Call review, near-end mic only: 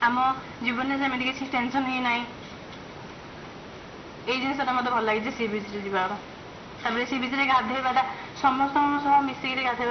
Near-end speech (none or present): none